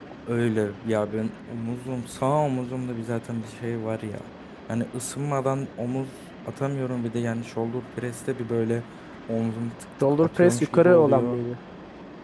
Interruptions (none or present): present